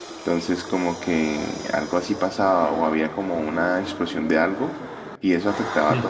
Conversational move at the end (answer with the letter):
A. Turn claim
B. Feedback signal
B